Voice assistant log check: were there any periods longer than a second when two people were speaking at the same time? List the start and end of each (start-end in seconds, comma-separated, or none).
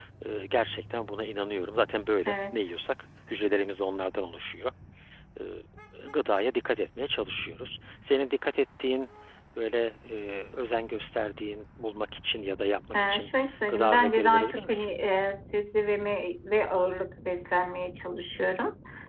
13.7-14.9